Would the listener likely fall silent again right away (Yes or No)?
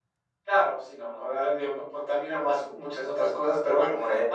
Yes